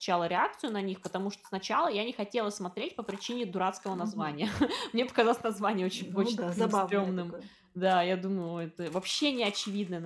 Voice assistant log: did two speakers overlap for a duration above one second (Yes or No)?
Yes